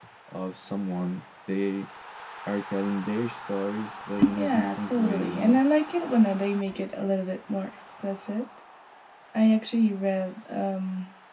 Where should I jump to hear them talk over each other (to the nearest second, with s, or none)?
4 s